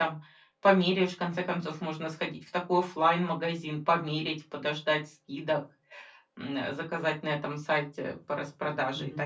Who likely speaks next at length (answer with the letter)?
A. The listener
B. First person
A